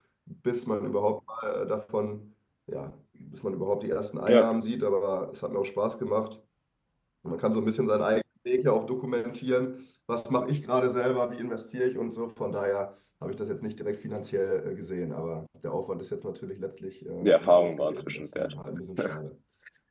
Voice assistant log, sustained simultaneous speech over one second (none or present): present